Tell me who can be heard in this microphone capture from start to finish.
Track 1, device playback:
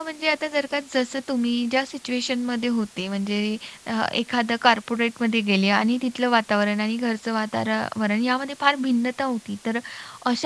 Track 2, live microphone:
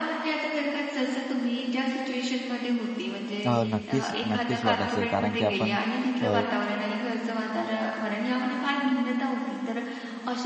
both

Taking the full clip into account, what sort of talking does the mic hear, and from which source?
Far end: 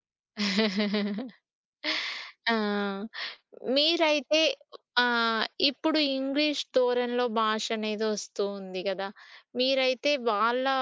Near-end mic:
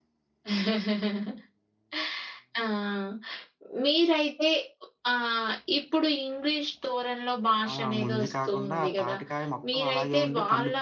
both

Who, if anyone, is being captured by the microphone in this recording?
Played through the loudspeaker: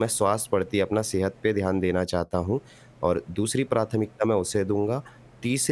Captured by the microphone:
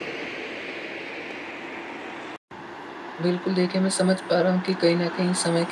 user only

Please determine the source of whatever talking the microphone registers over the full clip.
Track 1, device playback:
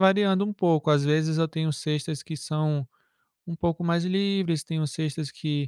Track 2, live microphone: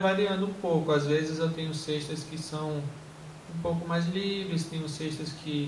echo only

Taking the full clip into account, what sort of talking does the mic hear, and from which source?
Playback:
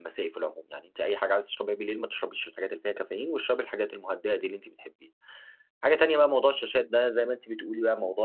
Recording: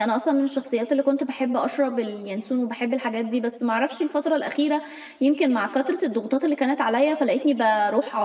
user only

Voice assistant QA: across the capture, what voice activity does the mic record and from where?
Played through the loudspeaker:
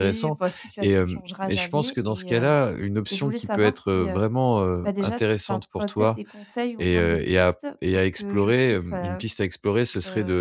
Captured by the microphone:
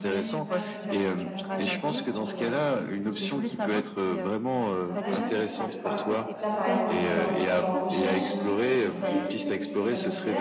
both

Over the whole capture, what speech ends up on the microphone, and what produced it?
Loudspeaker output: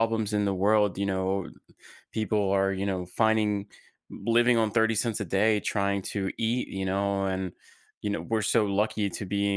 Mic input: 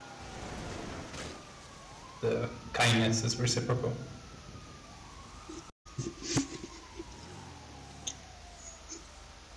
user only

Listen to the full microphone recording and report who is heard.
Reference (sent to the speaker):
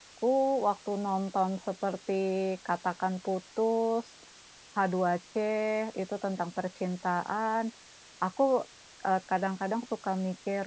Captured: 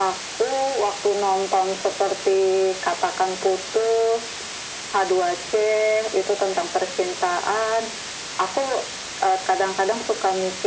echo only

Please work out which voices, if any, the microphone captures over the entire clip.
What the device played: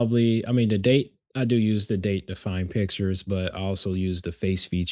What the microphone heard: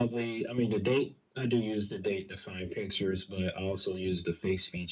echo only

